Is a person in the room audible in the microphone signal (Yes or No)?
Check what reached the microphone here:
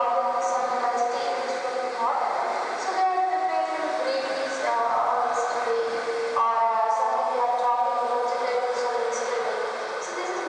No